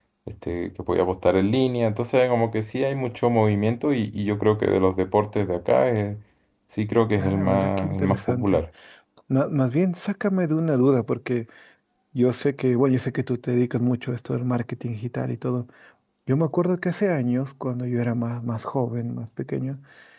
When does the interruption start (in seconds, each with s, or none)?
7.2 s